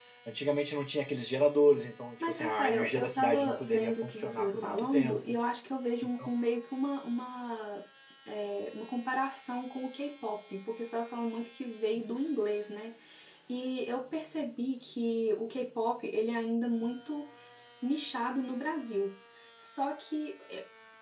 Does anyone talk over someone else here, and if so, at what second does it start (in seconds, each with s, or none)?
2.2 s